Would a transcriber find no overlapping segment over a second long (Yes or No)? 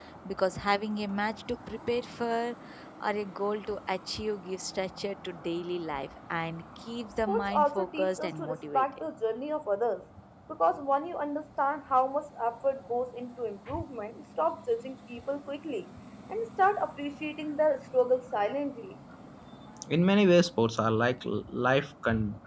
No